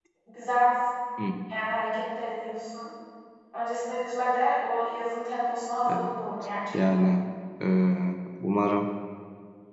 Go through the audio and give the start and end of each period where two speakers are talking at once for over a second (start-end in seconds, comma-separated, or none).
none